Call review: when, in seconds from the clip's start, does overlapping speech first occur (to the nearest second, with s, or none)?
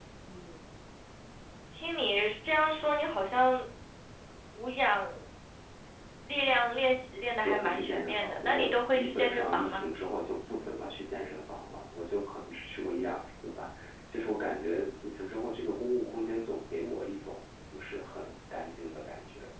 7 s